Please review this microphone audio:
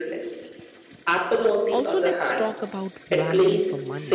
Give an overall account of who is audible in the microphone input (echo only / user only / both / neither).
both